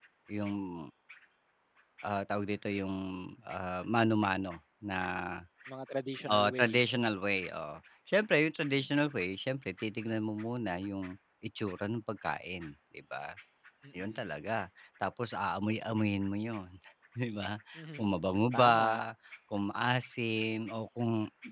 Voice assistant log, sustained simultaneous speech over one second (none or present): none